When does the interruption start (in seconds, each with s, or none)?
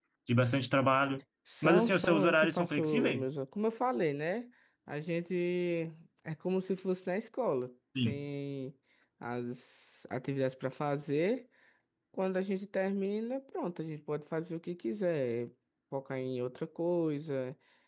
1.6 s